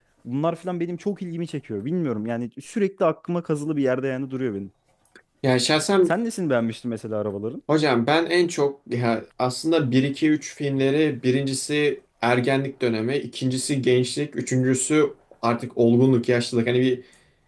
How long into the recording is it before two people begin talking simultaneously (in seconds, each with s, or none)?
none